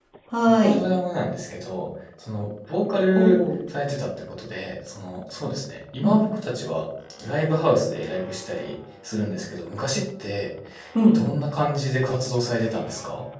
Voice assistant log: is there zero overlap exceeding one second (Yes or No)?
Yes